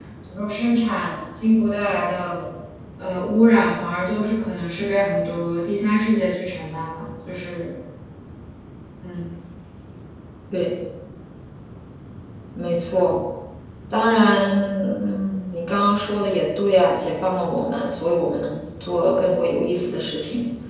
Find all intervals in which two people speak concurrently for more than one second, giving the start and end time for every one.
none

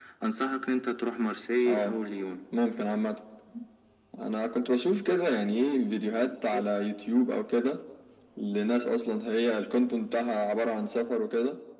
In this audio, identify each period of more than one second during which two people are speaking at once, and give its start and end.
none

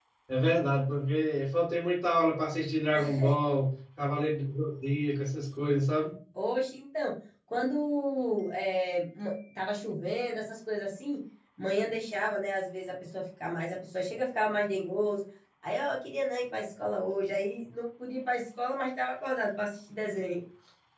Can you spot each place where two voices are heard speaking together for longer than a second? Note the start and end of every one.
none

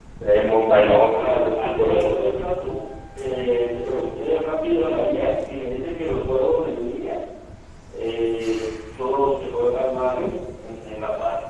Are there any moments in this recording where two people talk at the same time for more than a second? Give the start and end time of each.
0.7-2.5

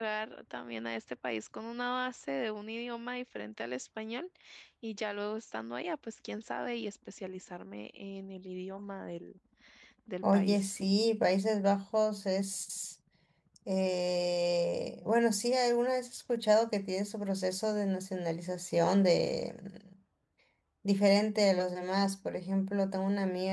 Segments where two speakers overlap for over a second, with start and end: none

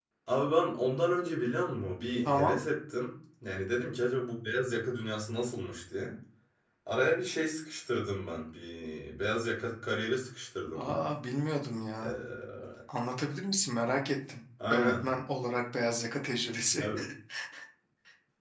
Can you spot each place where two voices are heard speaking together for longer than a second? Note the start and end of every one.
none

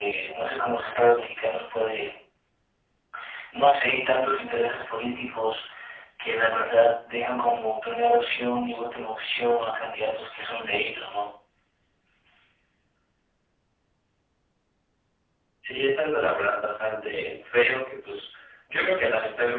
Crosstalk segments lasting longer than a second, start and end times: none

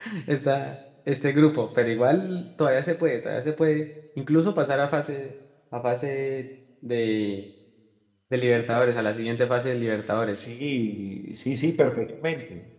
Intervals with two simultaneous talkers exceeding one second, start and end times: none

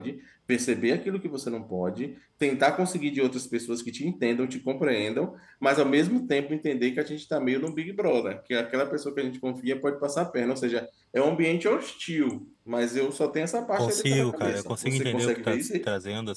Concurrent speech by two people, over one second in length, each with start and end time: 13.7-15.9

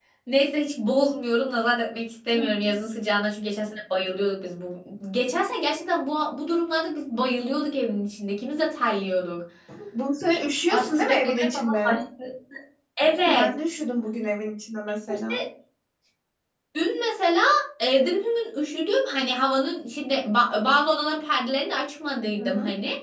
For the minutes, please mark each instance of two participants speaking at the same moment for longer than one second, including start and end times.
10.7-12.0

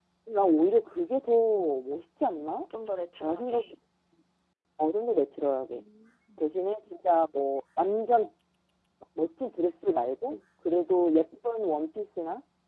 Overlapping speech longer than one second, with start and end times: none

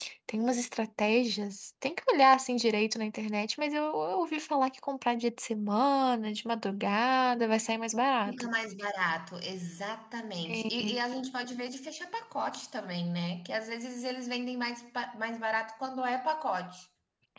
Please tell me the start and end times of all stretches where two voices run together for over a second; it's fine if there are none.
none

